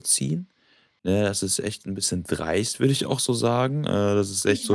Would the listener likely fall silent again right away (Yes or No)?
Yes